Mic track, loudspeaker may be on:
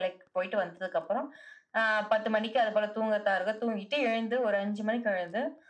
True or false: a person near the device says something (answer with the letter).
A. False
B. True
A